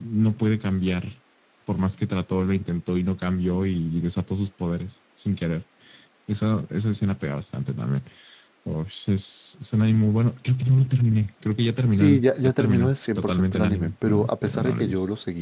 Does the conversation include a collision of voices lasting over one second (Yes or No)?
Yes